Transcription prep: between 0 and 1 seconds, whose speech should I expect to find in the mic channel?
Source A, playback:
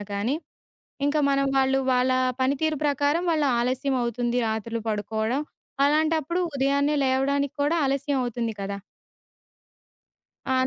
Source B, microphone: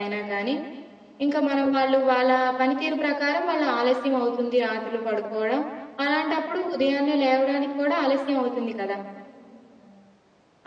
echo only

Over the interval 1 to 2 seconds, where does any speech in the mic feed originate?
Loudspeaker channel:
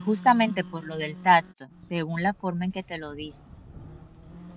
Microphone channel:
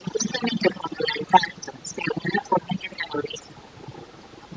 echo only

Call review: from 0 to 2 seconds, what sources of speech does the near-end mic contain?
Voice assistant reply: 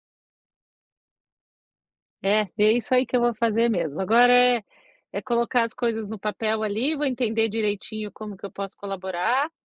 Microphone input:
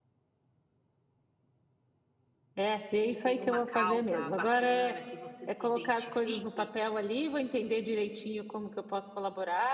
neither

